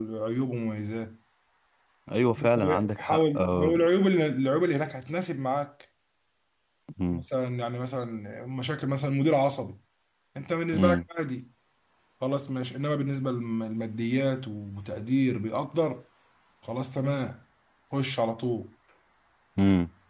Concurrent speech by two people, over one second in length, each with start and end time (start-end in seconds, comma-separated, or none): 2.4-3.8